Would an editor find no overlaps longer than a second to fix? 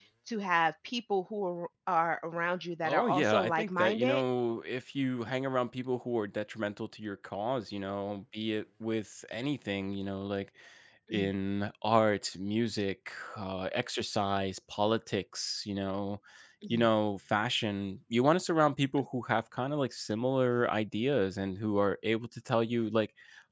No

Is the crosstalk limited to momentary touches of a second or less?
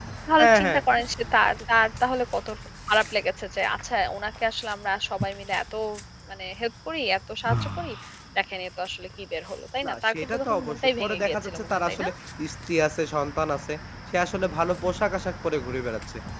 No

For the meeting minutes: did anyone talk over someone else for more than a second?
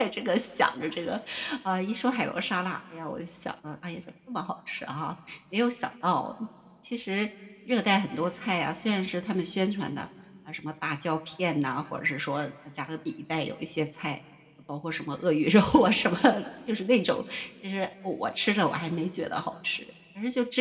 No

